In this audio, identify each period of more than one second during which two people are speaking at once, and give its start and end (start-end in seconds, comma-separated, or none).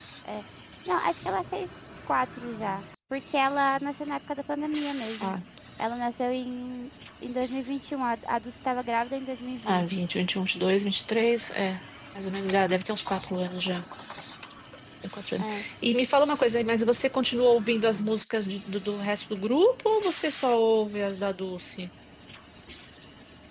none